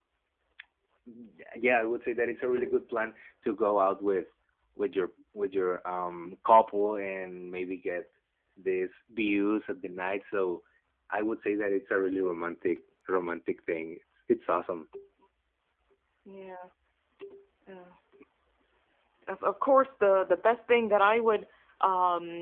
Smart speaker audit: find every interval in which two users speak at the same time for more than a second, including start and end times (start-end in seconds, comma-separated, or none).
none